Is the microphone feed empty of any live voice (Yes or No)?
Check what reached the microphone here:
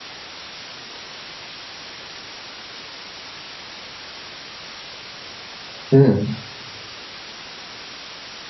No